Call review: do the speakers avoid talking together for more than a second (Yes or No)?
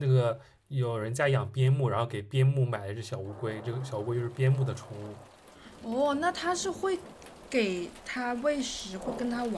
Yes